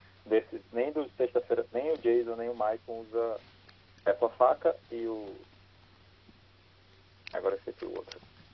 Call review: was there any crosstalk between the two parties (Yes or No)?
No